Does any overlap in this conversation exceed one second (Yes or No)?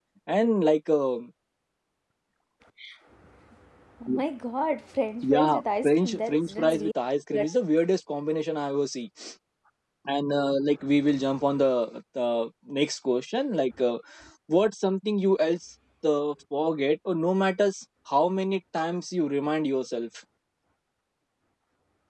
Yes